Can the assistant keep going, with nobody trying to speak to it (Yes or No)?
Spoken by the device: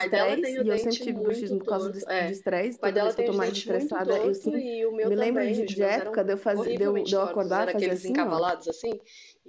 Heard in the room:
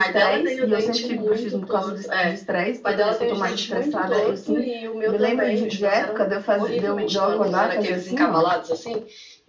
No